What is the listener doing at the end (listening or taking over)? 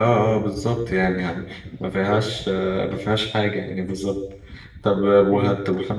listening